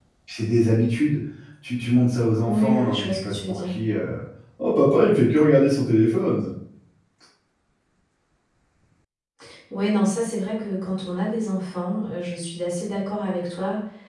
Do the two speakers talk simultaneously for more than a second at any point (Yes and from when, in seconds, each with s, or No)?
Yes, from 2.4 s